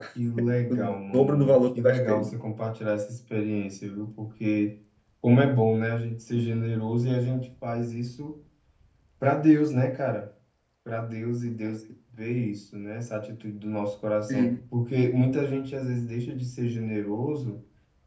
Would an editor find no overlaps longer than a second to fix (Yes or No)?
No